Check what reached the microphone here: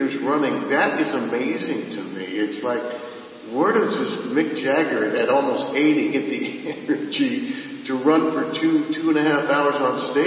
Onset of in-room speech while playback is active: none

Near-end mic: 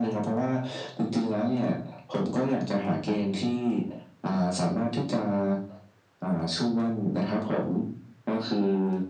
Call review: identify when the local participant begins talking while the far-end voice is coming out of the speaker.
none

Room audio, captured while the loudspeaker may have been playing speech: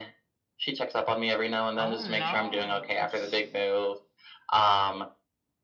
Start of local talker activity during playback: 1.8 s

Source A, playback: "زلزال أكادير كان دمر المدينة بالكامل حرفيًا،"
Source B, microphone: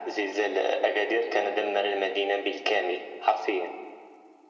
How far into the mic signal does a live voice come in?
none

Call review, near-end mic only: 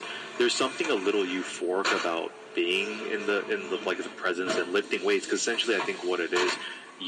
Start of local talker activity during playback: none

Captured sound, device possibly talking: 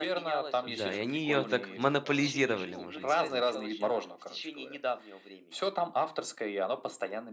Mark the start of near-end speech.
0.6 s

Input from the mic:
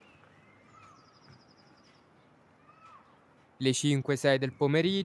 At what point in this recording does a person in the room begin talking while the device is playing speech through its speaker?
3.6 s

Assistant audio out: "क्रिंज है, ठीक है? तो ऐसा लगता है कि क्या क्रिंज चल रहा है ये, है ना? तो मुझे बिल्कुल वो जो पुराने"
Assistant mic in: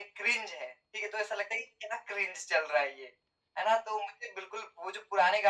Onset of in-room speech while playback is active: none

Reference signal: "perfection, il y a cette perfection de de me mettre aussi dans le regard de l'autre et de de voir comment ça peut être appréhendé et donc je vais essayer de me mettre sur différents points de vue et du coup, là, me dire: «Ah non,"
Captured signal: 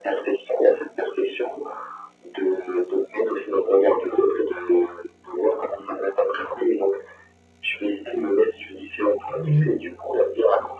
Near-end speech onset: 9.3 s

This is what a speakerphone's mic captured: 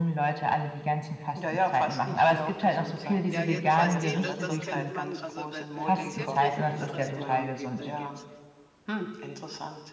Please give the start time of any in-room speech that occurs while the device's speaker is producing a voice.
3.3 s

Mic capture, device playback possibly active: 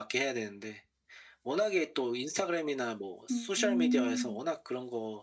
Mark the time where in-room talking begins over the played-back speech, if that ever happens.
3.3 s

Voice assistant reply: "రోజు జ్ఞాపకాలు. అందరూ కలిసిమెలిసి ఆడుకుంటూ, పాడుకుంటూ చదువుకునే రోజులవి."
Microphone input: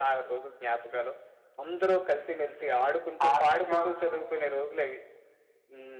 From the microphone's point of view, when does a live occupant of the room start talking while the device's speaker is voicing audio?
3.2 s

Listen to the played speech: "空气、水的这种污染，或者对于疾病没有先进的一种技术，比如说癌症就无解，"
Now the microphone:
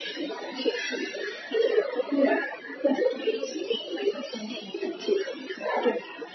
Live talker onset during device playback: none

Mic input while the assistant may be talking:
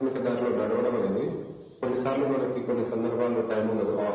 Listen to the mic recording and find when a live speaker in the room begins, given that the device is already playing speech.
none

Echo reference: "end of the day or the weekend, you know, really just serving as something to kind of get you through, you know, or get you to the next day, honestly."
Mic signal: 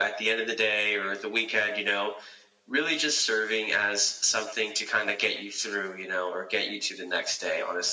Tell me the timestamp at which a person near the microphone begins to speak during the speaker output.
none

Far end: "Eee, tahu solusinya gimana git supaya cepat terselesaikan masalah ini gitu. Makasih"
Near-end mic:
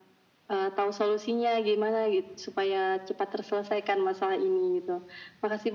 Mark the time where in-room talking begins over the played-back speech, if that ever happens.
none

